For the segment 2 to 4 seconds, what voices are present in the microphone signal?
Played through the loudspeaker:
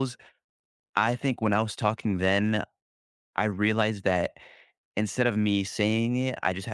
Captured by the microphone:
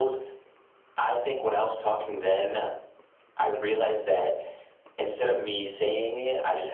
echo only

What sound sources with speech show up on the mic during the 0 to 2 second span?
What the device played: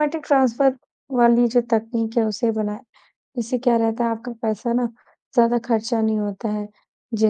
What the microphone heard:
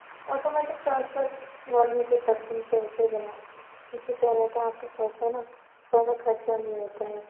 echo only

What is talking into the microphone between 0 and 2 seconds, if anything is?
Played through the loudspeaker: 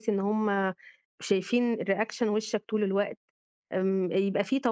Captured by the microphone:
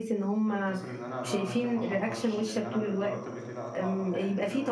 both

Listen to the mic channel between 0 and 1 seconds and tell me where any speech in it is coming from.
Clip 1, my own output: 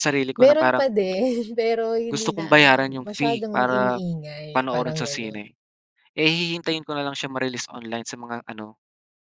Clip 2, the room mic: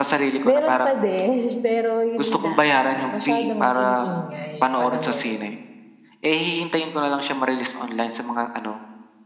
echo only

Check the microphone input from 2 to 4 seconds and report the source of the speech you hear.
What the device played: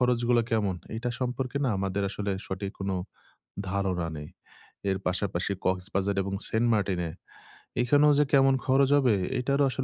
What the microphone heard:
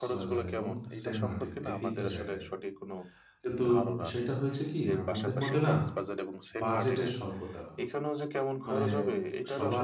both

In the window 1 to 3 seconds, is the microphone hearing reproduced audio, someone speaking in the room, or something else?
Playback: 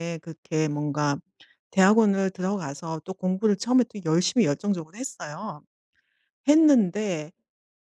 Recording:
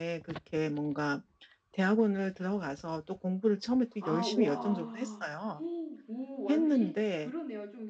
echo only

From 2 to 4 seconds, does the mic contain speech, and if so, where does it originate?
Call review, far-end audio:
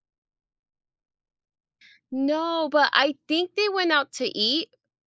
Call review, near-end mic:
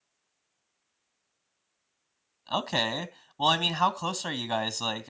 user only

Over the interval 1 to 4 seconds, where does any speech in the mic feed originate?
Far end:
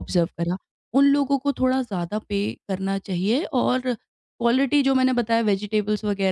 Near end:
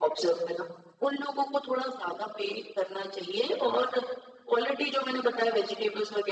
echo only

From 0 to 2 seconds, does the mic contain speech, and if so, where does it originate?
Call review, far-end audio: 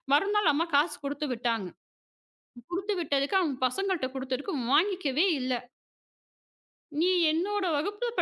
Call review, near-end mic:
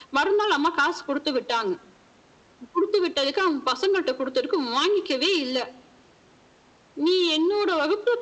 echo only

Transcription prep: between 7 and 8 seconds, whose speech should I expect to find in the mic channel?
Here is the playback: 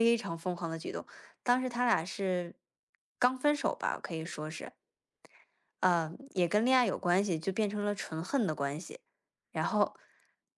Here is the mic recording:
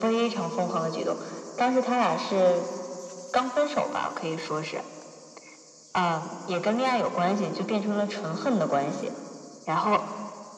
echo only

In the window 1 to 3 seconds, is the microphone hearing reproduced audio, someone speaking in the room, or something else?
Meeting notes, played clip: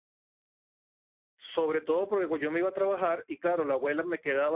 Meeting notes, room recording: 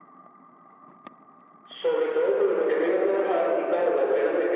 echo only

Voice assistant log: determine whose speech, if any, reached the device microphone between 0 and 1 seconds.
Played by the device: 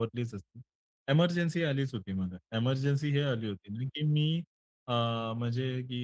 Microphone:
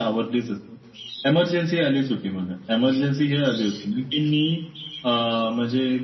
echo only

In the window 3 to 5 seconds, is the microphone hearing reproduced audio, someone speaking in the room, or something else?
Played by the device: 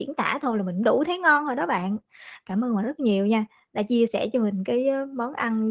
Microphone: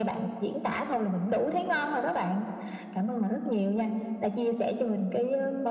echo only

